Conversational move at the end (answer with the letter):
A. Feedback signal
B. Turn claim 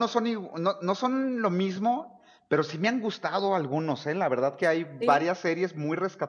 A